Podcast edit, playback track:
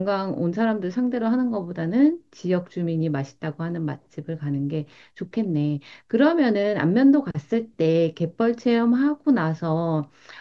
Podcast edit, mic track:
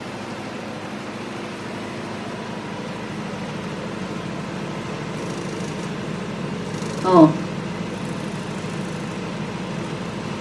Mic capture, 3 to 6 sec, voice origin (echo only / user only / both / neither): neither